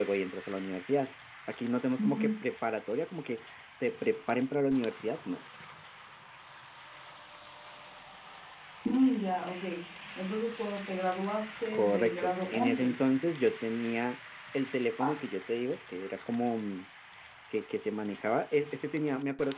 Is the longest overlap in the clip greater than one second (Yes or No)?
Yes